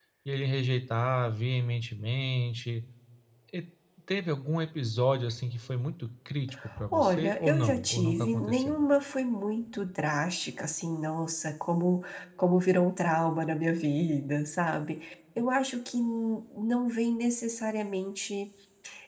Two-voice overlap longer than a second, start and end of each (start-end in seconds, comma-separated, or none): 6.9-8.8